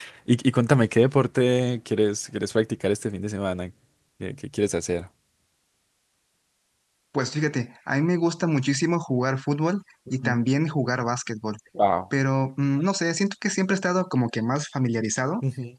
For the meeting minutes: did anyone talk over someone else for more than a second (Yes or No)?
No